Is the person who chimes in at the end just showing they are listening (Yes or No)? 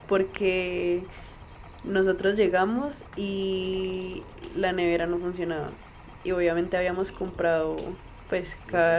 Yes